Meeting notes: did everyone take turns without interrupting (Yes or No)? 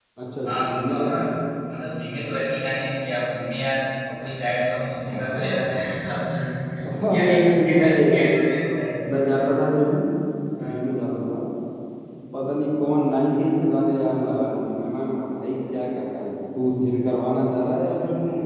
No